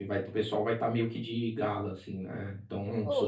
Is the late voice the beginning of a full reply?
Yes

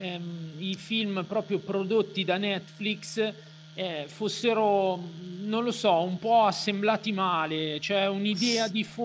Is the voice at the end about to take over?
No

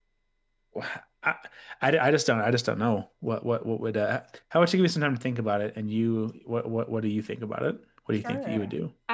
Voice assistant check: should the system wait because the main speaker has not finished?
No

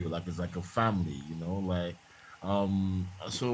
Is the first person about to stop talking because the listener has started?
No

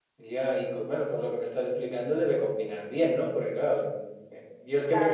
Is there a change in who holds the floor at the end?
No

